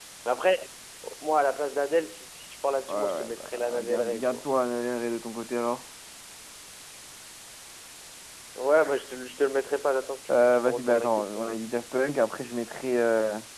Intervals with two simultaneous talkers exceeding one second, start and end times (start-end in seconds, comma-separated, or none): 2.9-4.4, 10.3-11.6